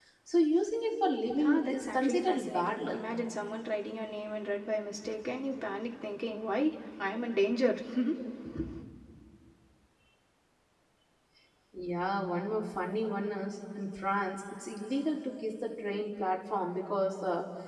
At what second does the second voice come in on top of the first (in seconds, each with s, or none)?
1.3 s